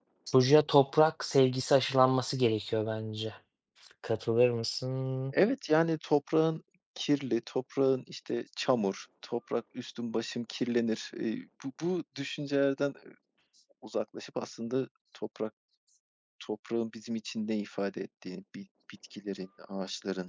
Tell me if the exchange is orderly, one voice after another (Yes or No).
Yes